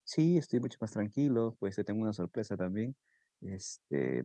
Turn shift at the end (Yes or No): No